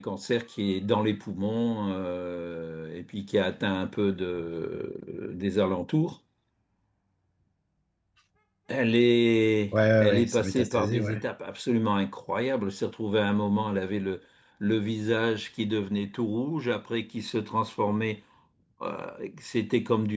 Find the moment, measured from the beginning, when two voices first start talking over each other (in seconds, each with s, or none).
10.0 s